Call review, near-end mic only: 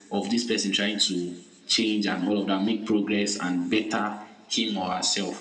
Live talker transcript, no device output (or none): none